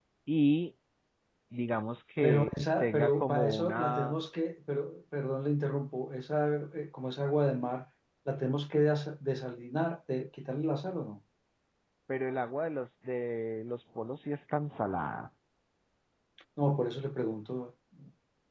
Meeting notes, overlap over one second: present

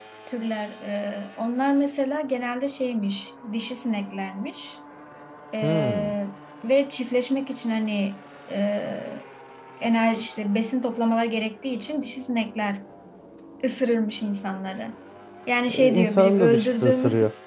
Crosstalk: present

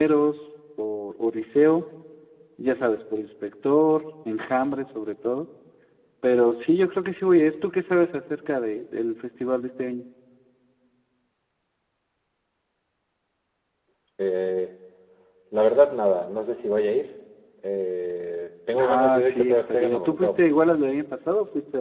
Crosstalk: present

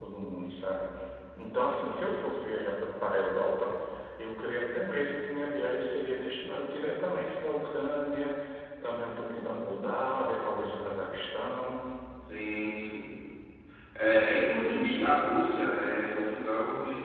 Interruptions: none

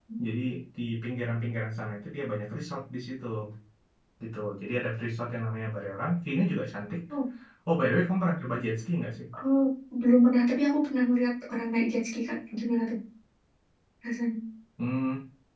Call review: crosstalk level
none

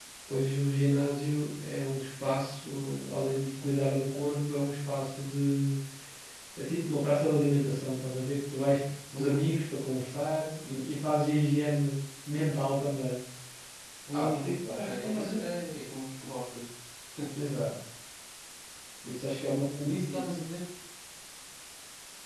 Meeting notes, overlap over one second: present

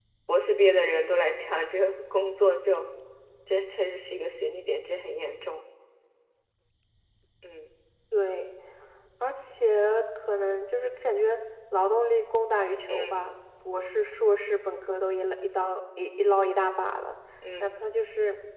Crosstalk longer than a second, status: none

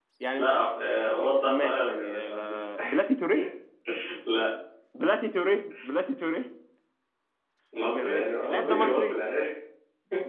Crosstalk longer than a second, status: present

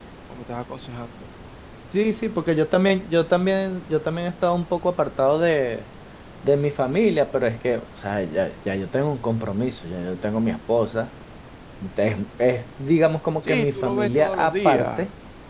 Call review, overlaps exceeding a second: present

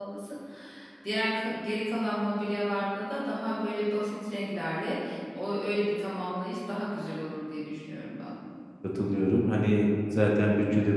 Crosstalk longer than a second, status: none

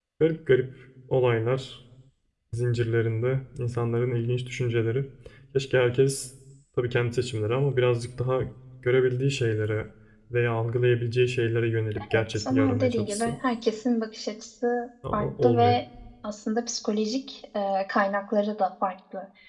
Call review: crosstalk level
present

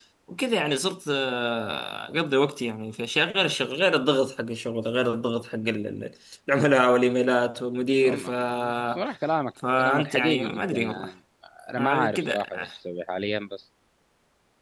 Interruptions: present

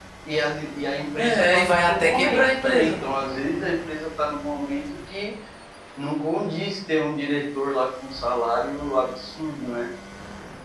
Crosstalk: present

